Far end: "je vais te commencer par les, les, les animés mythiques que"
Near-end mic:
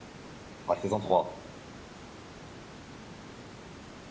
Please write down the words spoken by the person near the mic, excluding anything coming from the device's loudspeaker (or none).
La saison trois